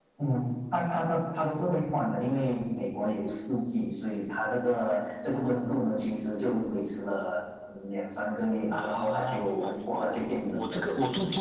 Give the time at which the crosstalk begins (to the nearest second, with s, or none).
9 s